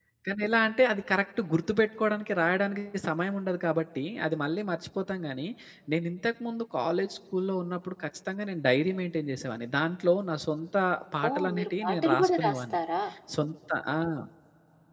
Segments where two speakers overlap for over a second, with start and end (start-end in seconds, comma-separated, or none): 11.3-12.8